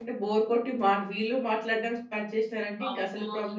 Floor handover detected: Yes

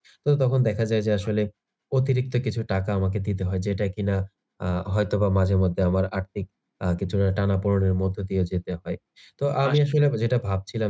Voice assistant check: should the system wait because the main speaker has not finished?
Yes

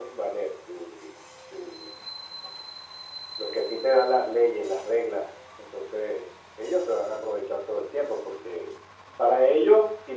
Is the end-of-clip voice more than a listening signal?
No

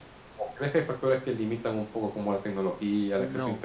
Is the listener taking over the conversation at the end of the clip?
No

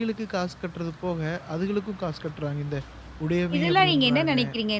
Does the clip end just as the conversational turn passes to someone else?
Yes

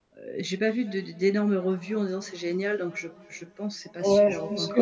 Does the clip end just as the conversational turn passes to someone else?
Yes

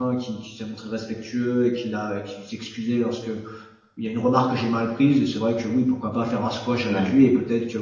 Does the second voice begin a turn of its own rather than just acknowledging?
No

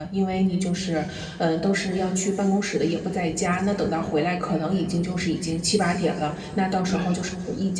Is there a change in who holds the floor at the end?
No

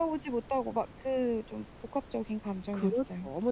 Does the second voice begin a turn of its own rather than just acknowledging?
Yes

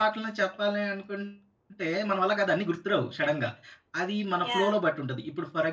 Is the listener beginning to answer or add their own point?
No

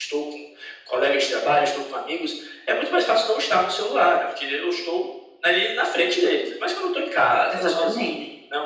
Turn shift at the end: No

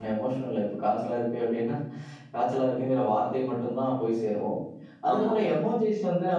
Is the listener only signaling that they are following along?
Yes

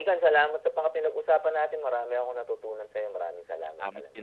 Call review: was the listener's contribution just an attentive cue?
No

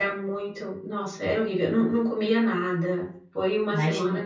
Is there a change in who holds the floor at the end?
Yes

